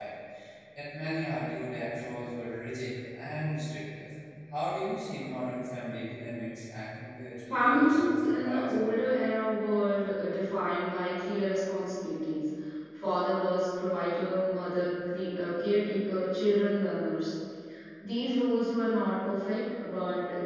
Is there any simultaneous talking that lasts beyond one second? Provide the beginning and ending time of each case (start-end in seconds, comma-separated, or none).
7.5-8.7